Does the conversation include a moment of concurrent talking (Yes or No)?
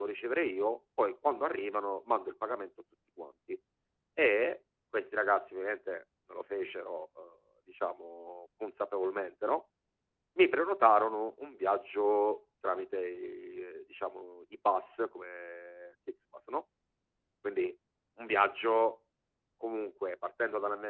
No